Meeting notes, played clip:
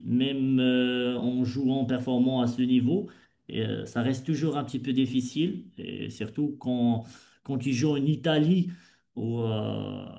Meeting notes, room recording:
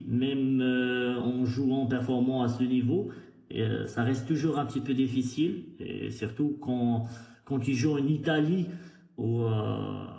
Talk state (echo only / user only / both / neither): echo only